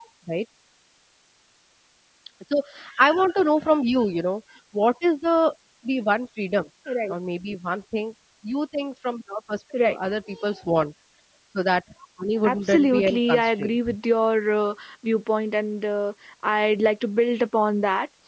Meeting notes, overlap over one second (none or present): present